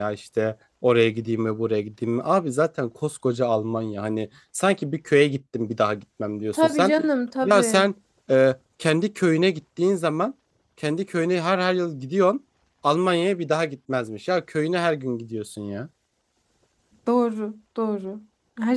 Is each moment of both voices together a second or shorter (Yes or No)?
Yes